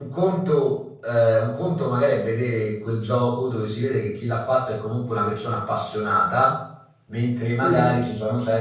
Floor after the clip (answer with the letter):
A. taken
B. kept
B